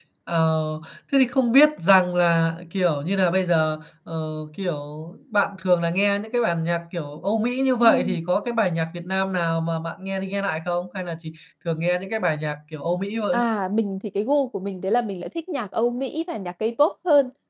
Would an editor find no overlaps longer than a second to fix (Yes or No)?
Yes